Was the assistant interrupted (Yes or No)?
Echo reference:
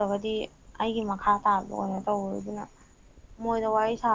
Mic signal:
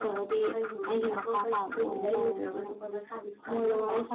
Yes